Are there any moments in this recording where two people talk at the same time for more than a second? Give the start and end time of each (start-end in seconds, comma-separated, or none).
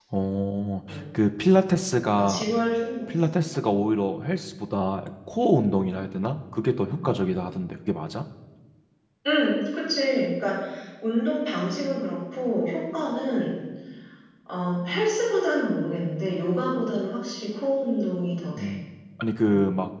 none